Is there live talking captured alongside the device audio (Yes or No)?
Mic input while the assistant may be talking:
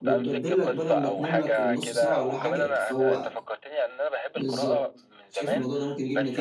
Yes